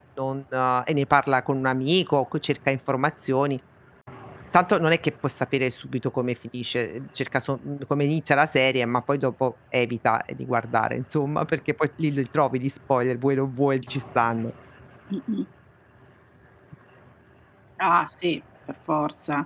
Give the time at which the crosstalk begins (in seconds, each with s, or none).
none